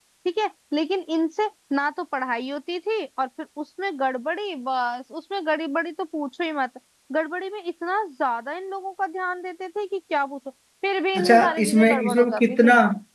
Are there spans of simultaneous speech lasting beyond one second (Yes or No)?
Yes